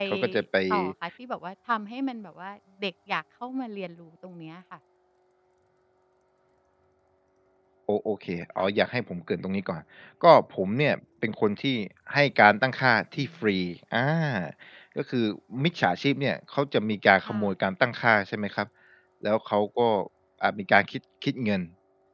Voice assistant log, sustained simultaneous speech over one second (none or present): none